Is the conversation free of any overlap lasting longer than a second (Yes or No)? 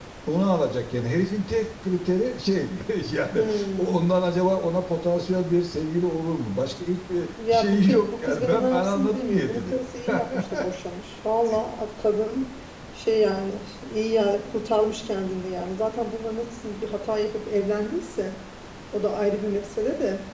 No